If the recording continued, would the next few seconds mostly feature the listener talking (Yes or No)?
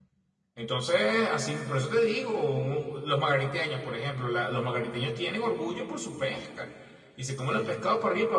No